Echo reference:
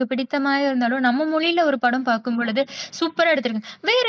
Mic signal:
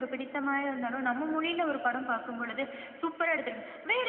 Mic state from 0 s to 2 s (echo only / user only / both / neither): echo only